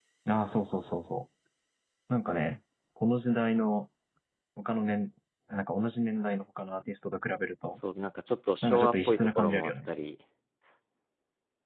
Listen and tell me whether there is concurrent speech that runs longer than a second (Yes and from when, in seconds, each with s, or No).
Yes, from 8.6 s